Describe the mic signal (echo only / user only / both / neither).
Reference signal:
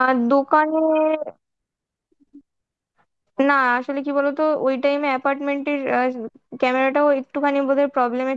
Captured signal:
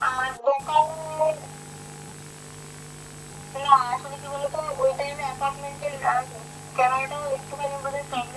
echo only